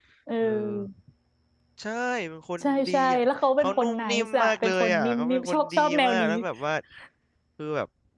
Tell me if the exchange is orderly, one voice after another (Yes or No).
No